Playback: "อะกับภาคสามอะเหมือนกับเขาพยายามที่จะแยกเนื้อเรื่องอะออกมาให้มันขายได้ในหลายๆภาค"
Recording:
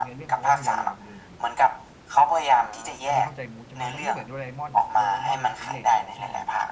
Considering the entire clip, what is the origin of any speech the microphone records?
both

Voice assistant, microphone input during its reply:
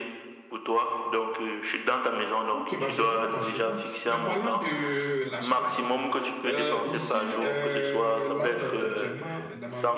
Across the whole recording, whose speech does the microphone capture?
both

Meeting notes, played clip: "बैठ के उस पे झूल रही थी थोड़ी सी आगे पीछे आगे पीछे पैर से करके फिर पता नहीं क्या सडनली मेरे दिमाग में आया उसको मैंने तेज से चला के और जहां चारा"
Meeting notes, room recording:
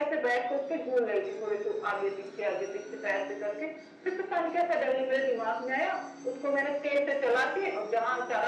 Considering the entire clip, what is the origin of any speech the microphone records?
echo only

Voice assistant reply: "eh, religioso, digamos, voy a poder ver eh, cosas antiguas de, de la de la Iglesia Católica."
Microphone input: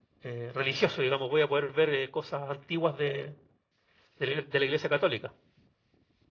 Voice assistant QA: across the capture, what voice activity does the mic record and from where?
echo only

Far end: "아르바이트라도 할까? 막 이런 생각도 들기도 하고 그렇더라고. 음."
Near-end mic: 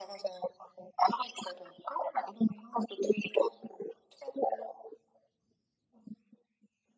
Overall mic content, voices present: echo only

